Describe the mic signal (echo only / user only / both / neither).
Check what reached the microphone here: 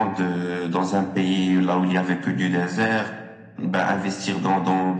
echo only